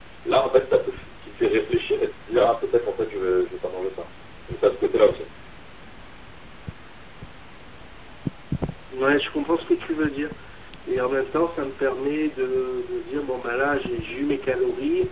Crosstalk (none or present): none